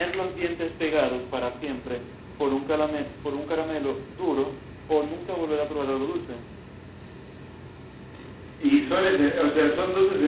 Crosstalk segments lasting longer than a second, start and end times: none

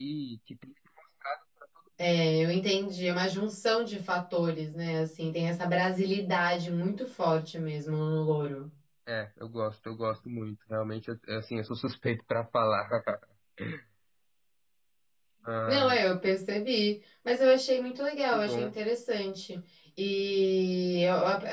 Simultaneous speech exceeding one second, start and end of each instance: none

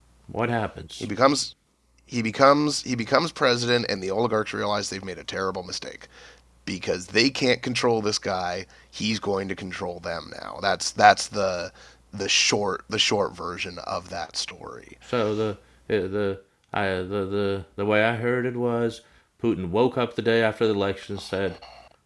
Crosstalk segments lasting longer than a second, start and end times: none

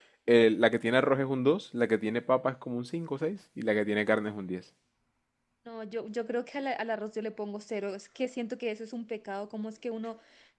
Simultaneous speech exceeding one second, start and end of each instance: none

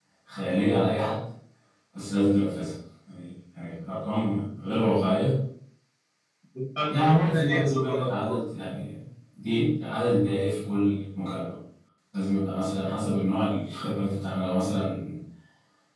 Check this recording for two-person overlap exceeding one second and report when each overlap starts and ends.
6.9-8.4

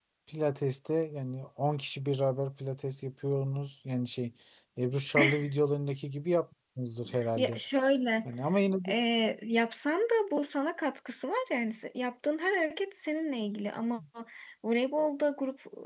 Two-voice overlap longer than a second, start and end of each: none

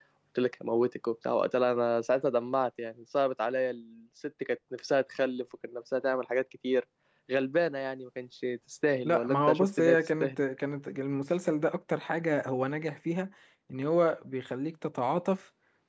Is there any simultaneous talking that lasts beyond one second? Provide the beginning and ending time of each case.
9.1-10.4

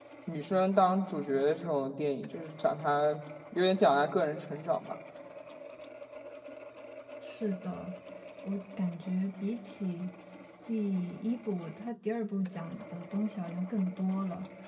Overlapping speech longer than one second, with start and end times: none

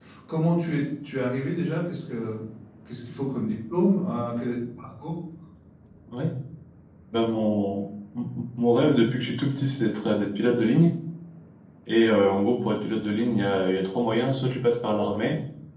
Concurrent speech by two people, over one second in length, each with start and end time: none

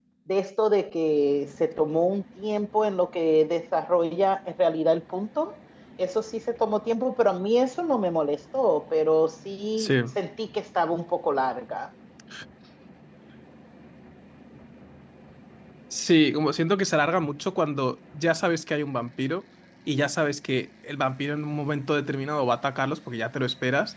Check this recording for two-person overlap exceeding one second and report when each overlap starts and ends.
none

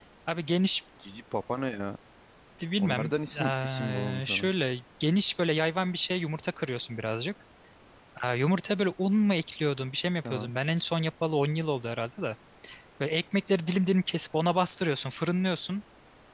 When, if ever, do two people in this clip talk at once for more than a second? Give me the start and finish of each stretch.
2.8-4.5

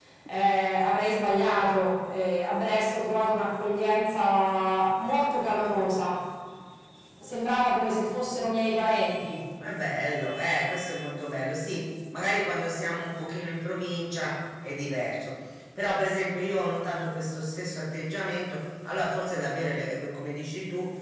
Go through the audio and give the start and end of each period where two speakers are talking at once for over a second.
none

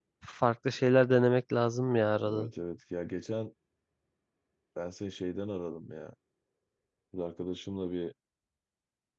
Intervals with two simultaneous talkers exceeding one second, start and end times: none

